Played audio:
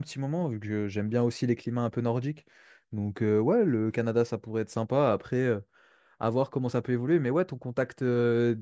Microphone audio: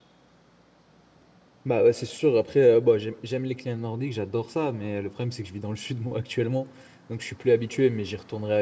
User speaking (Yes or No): Yes